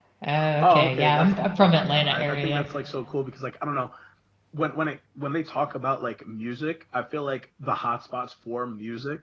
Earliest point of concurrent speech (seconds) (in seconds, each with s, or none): 0.6 s